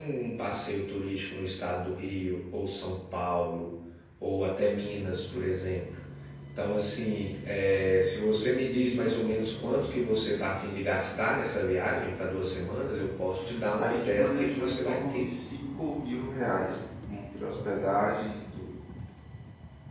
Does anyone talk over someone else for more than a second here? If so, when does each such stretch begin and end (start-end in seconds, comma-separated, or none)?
13.8-15.3